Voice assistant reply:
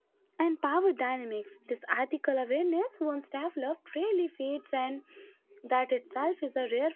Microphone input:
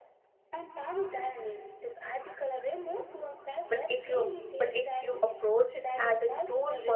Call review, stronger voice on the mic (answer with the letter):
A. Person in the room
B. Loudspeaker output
A